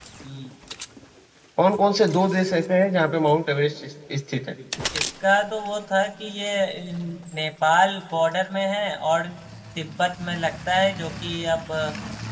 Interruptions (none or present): none